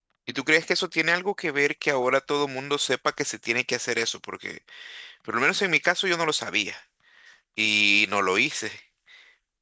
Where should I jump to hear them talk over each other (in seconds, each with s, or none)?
none